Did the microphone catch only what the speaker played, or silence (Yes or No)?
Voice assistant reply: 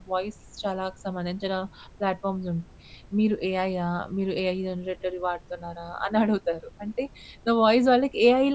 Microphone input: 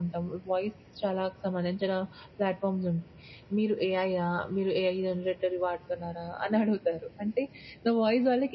Yes